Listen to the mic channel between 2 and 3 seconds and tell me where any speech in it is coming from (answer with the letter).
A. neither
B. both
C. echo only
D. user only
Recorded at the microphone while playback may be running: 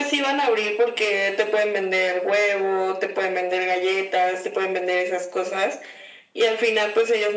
C